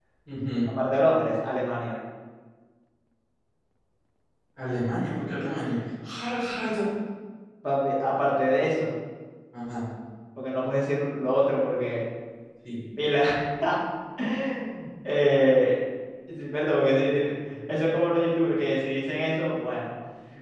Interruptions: none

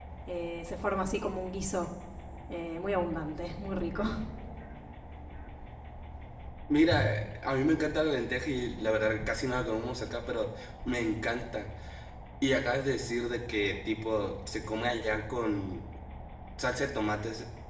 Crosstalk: none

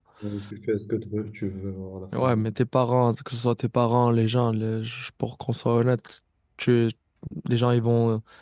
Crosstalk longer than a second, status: none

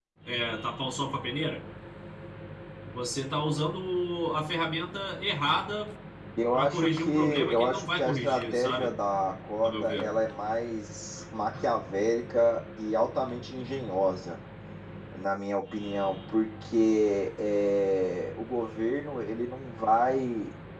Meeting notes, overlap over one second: present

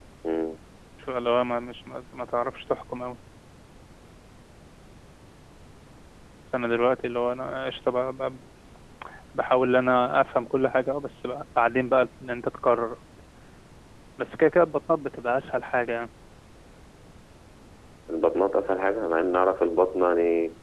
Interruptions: none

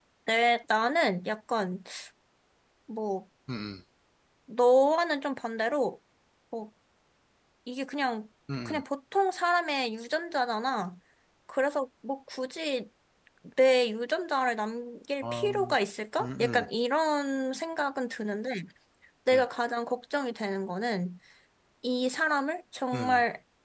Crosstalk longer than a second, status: none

